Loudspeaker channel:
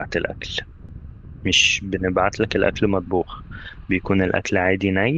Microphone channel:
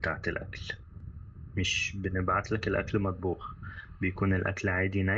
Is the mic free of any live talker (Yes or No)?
Yes